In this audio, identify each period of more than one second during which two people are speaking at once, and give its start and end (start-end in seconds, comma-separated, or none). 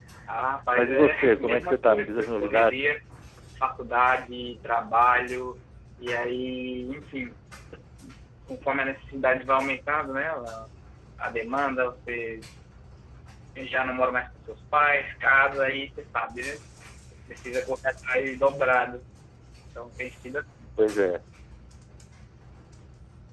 0.7-2.8